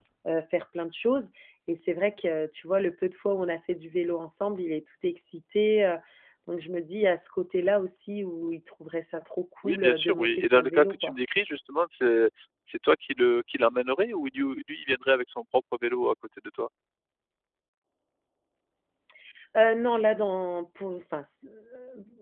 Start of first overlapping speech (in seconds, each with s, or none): 9.6 s